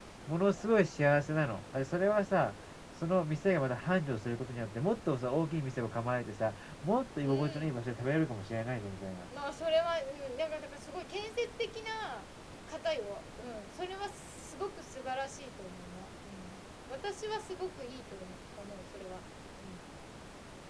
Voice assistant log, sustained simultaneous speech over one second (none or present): none